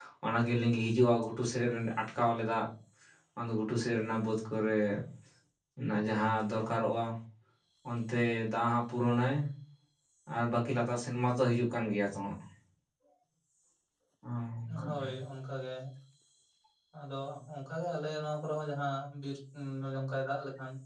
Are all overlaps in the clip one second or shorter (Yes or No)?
Yes